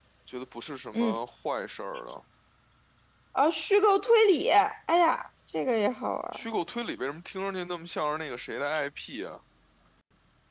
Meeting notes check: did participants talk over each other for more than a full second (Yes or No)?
No